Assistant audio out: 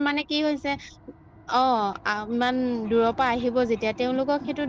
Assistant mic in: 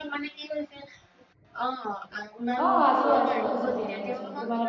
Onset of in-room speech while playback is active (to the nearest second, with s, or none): 3 s